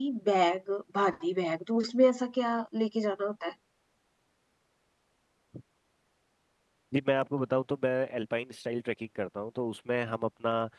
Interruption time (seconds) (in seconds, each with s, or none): none